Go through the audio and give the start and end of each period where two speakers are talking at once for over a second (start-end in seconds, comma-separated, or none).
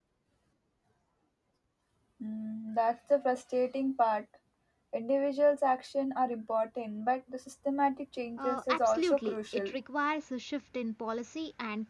8.4-9.8